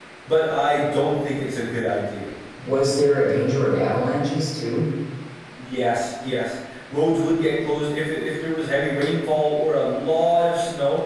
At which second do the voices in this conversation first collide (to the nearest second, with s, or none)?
none